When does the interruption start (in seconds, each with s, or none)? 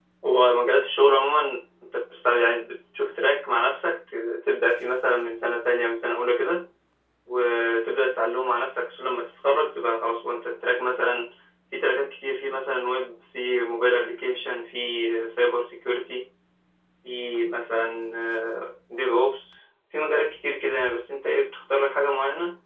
none